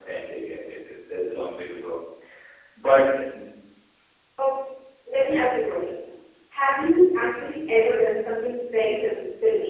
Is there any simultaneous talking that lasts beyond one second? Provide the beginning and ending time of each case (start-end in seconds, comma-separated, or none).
none